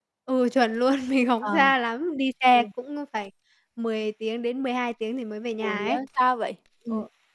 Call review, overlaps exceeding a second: none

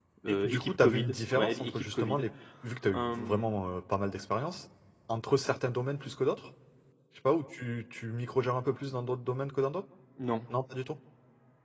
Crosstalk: present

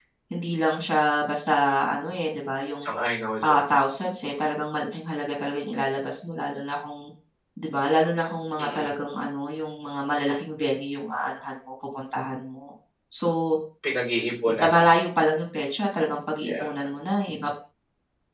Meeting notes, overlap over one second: none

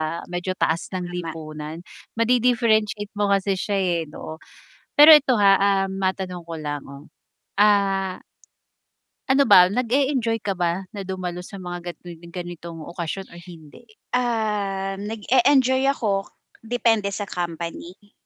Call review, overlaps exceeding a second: none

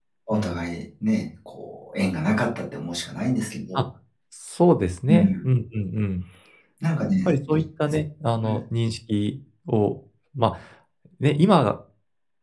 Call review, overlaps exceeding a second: none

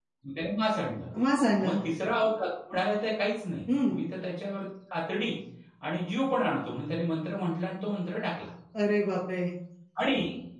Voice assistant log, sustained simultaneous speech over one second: none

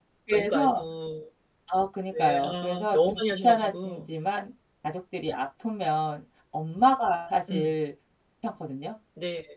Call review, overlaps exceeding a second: present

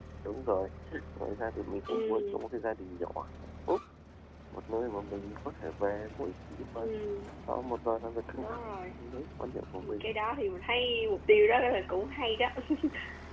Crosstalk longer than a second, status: none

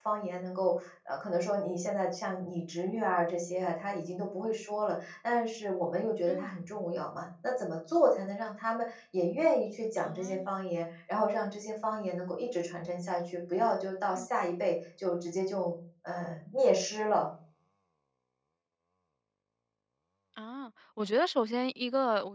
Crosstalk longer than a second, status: none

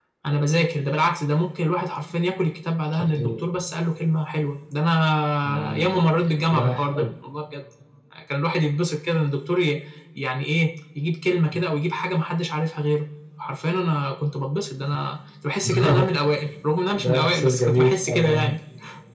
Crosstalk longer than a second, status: present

